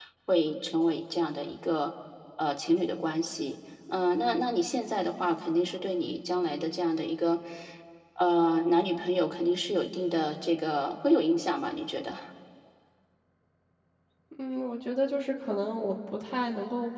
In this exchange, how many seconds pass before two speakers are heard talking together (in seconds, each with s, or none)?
none